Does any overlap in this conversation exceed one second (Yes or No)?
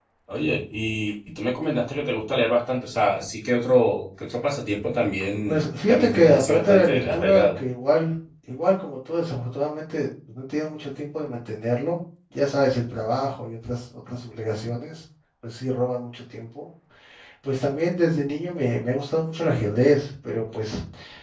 Yes